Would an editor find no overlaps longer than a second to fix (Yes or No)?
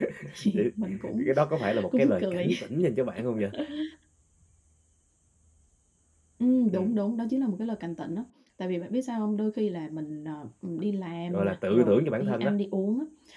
No